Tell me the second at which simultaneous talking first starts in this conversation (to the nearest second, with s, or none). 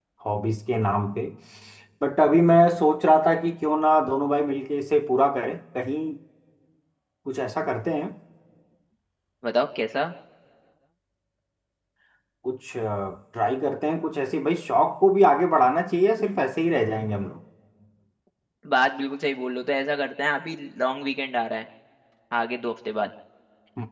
none